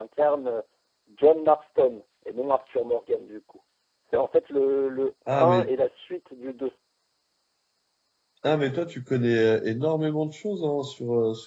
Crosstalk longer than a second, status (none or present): none